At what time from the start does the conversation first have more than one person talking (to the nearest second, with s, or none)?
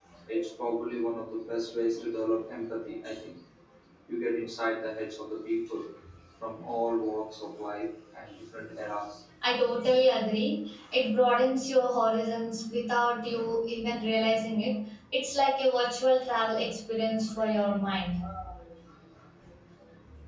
none